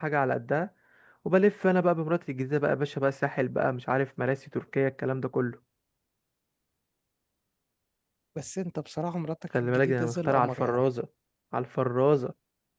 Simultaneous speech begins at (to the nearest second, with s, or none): 10 s